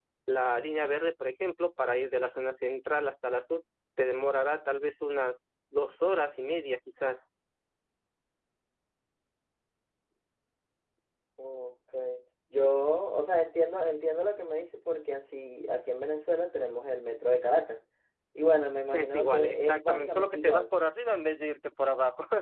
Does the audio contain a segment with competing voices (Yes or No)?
Yes